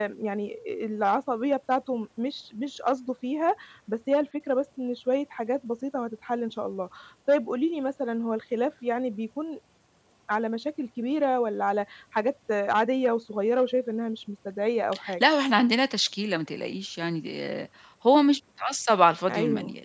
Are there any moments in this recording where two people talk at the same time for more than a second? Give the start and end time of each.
none

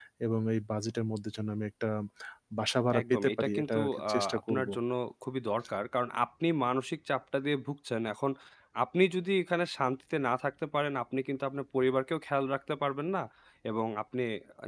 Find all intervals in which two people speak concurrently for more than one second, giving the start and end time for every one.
3.0-4.7

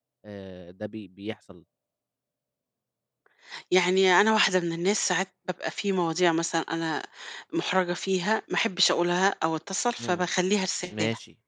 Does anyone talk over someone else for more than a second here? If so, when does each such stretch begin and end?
none

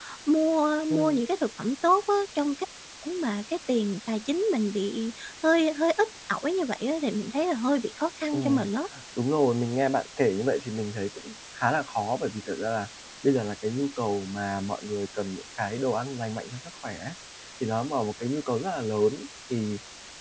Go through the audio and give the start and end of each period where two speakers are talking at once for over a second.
none

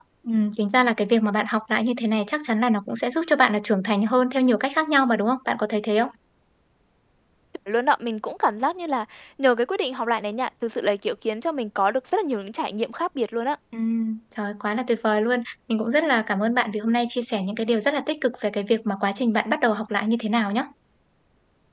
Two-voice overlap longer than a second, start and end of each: none

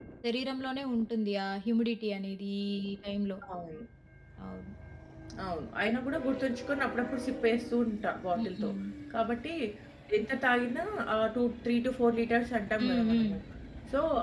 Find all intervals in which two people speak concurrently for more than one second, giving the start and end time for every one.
none

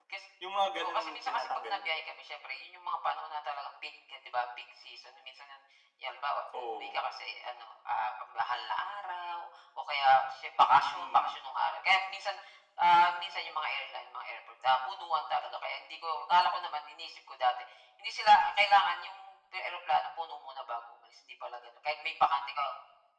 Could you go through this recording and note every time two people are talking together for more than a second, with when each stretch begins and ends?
0.8-2.0

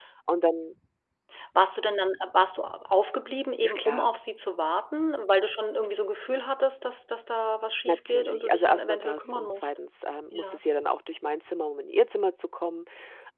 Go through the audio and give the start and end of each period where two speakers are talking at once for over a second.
7.8-9.7

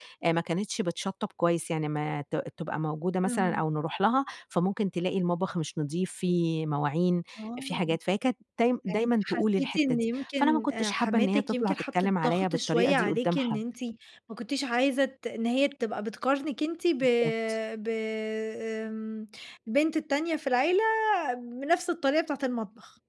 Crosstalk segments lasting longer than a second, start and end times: 8.9-13.6

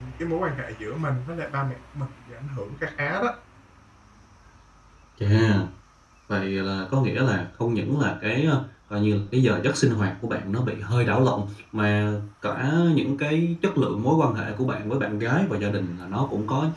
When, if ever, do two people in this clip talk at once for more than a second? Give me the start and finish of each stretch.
none

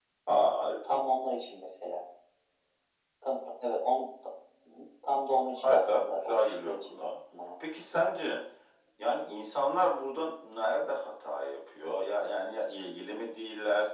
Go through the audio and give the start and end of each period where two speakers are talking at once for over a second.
5.6-7.1

